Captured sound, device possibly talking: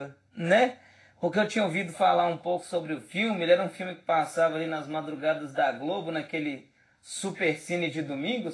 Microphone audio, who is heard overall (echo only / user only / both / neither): user only